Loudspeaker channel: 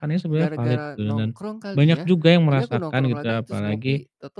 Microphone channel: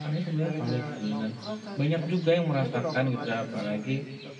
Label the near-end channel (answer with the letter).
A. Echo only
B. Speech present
A